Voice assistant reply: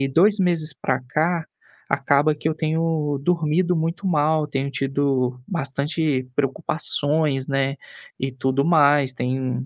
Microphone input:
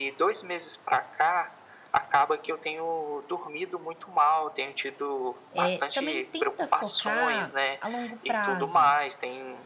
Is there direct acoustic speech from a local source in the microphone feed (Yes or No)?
Yes